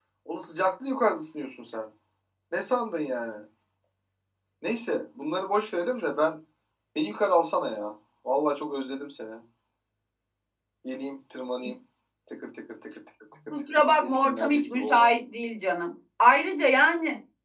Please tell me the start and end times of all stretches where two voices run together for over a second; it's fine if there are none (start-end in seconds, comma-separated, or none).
13.5-15.1